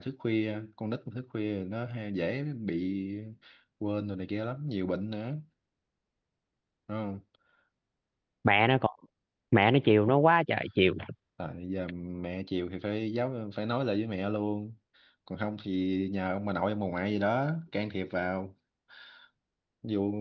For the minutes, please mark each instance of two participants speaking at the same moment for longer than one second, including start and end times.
none

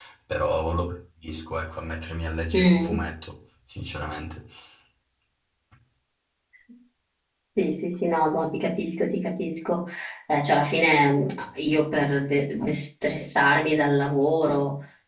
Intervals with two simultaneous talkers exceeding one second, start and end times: none

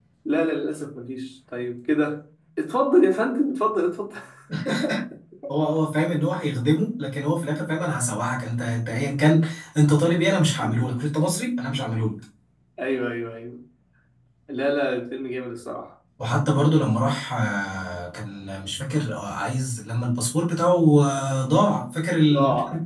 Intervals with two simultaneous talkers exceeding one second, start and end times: none

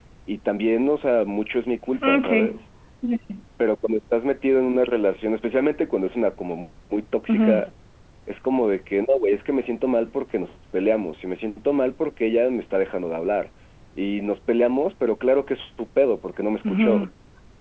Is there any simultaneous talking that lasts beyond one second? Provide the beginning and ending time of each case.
none

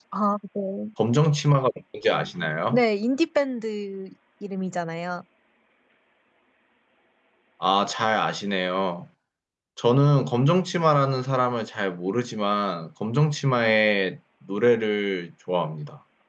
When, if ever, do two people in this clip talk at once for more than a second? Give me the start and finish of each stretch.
none

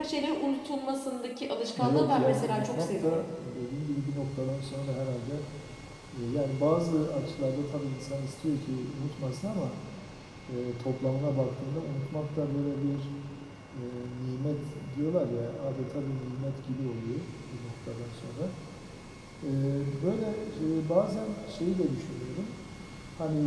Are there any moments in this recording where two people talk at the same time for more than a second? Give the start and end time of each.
1.8-3.3

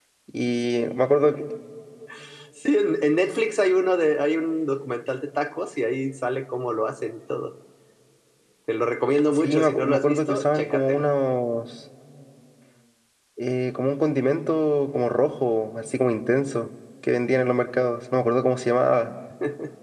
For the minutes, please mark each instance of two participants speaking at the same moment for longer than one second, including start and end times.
9.4-11.1

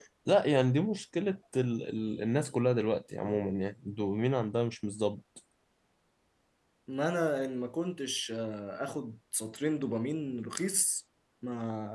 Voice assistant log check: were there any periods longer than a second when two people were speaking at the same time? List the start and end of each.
none

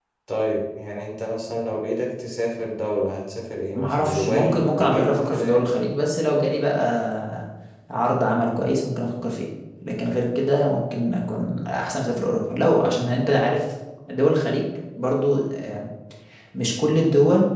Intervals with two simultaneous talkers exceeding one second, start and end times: 3.8-5.7

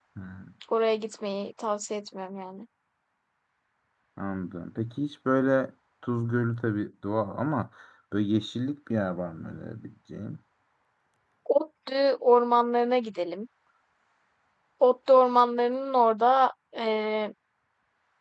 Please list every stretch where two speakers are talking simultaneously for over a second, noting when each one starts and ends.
none

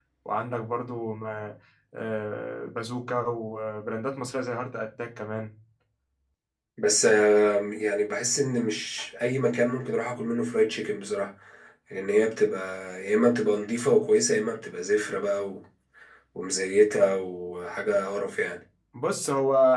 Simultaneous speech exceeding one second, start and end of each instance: none

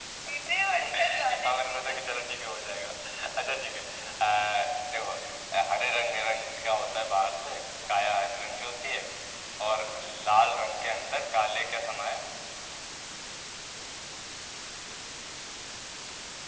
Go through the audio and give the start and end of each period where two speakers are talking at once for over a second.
1.0-2.2

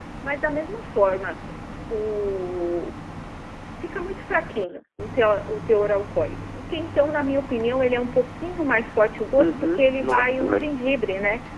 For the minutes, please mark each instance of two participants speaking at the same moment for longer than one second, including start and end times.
9.4-10.7

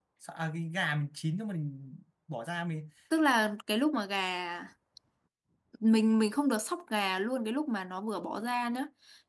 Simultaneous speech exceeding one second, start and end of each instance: none

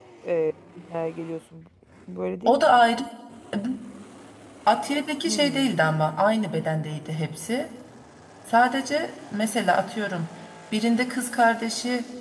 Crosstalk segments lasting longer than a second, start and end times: none

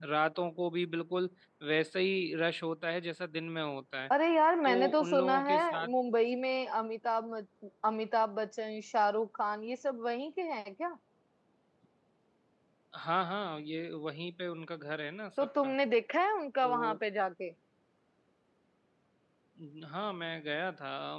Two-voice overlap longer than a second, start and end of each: 4.6-5.9

